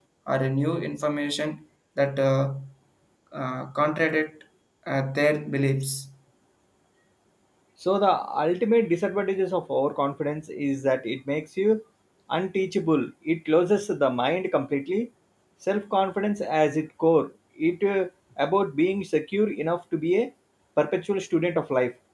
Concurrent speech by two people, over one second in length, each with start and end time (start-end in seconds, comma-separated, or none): none